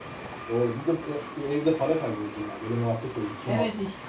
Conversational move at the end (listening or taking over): taking over